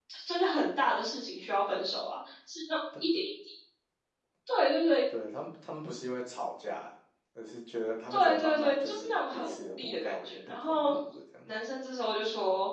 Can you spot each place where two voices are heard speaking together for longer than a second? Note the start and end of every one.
8.1-10.9

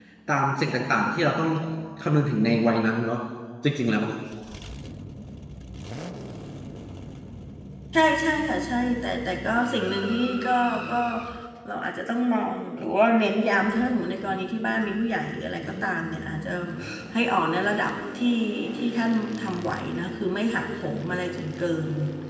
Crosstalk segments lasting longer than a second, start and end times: none

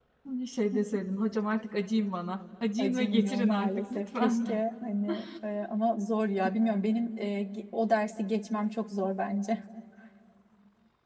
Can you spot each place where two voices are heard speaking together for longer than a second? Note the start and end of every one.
2.8-4.5

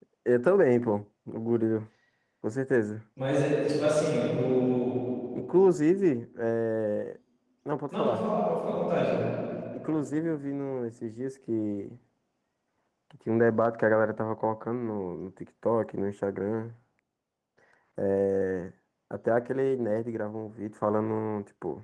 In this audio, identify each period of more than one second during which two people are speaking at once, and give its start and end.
none

